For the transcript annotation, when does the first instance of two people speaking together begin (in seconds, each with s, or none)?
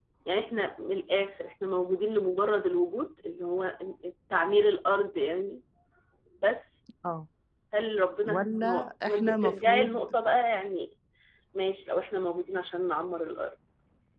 8.2 s